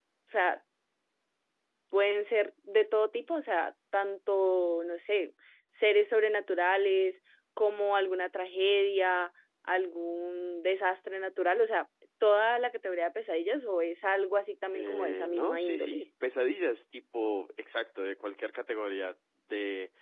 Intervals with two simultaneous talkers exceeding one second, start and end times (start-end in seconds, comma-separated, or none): 14.7-16.1